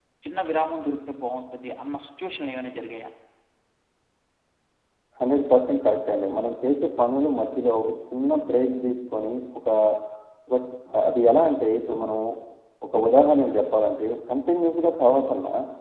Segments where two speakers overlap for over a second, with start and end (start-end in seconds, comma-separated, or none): none